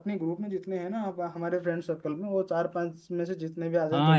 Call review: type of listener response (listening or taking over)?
taking over